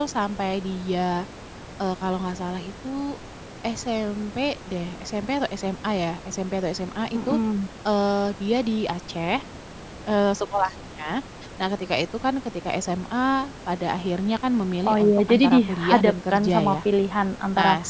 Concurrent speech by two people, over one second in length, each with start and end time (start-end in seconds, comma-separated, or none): 14.8-16.8